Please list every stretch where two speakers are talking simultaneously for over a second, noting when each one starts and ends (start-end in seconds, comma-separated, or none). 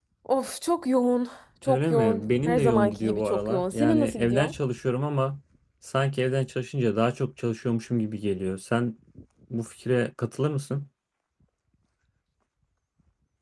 1.7-4.5